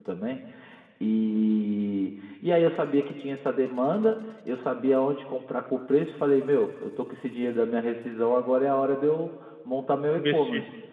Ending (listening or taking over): listening